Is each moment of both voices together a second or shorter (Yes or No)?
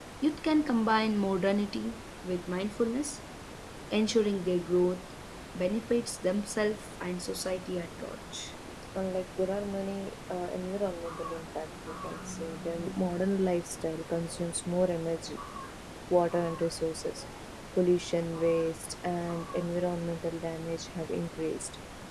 Yes